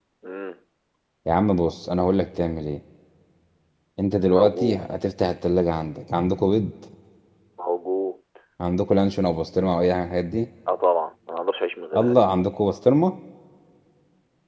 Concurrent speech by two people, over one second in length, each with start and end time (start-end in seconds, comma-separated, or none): none